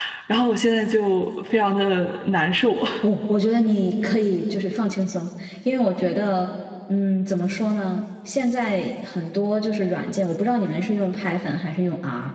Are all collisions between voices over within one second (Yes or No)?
Yes